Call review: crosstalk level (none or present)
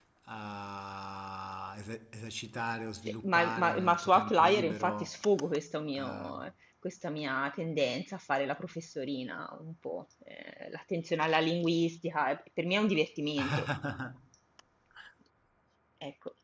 present